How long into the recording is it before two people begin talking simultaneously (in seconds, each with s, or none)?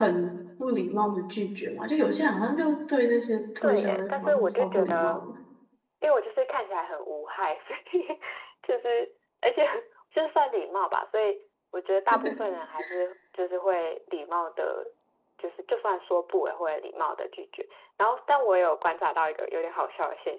3.6 s